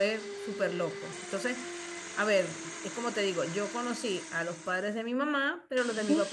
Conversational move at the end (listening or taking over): listening